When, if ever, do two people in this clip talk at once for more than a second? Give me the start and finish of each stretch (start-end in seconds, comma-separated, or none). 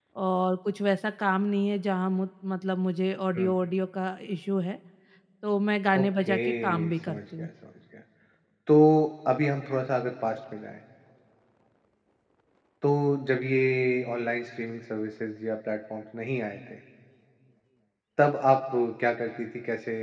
6.0-7.5